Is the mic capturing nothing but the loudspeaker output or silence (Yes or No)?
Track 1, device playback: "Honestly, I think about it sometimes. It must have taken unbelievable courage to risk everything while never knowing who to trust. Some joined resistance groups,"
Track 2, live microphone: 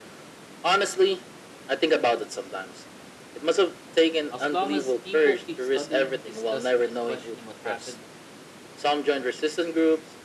No